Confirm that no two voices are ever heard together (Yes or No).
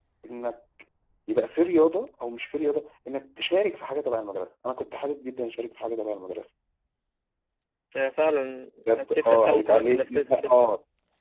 No